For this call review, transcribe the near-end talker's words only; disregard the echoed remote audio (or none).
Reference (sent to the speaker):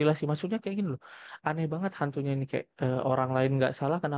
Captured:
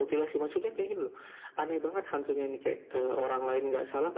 none